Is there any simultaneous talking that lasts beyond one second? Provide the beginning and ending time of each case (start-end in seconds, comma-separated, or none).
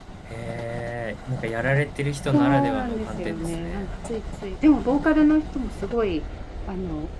2.3-3.9